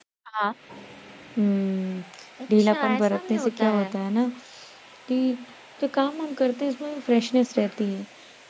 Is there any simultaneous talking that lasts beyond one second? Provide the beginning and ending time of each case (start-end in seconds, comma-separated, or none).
2.6-3.9